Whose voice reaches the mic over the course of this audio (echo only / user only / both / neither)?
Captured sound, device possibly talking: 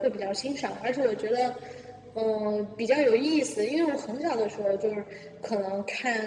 echo only